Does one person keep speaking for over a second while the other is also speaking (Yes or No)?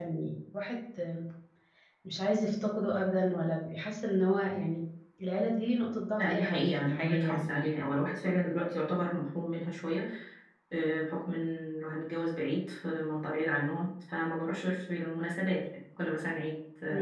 Yes